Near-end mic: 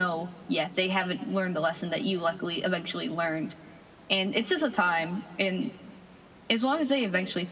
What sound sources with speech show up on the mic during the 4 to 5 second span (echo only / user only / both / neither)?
echo only